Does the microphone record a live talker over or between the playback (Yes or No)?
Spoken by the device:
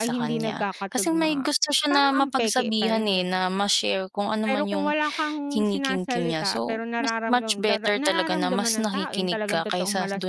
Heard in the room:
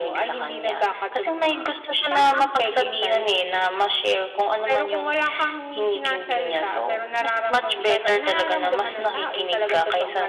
No